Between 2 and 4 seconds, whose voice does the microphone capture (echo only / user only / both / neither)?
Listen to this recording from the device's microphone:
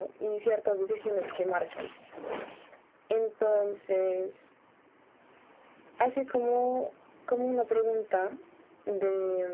echo only